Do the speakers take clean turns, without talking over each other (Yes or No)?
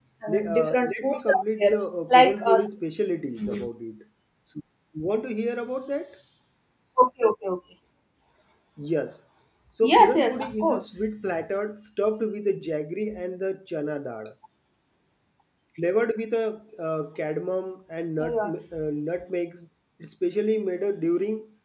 No